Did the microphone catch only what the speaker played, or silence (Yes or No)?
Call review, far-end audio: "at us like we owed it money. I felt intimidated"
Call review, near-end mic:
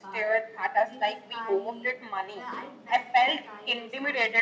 No